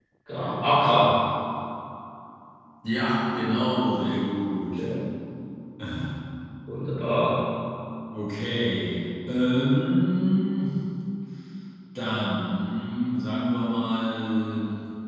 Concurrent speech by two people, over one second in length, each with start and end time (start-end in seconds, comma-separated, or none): none